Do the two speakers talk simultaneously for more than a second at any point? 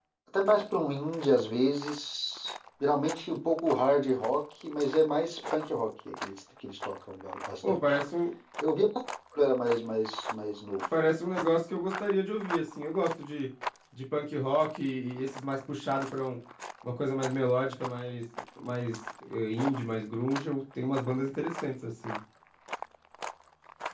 No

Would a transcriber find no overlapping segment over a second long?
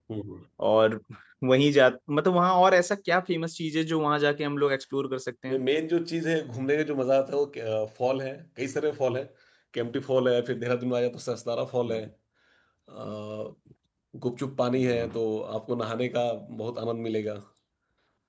Yes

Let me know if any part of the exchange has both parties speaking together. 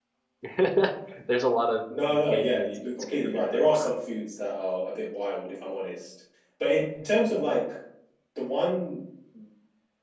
Yes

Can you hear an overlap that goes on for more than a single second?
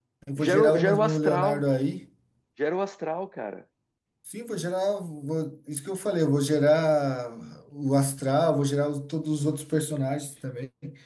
Yes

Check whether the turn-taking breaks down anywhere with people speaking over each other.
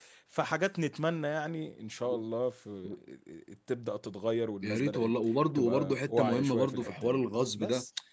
Yes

